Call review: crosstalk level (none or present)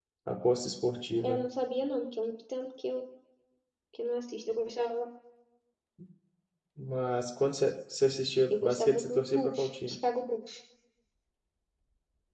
present